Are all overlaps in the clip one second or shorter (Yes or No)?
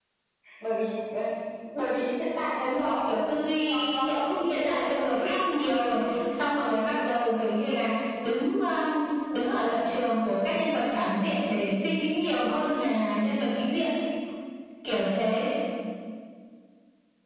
No